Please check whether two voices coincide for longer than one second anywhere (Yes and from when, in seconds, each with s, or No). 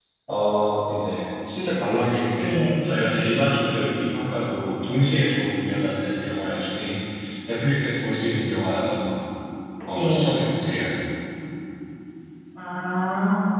No